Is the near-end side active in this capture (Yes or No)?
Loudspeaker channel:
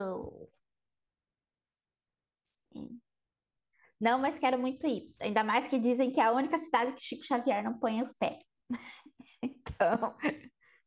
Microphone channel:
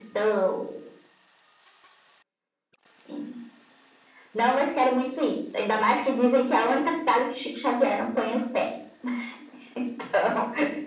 No